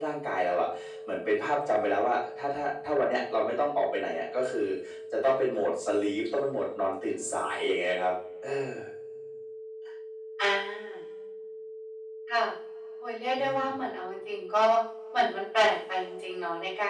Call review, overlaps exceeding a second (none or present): none